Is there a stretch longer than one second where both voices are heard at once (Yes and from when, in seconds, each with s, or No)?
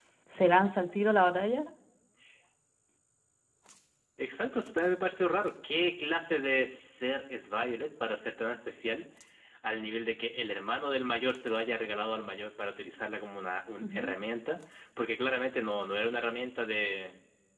No